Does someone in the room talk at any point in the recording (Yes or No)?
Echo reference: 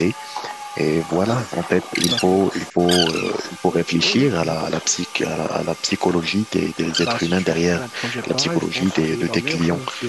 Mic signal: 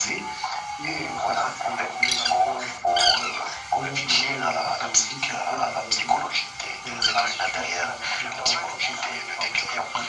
Yes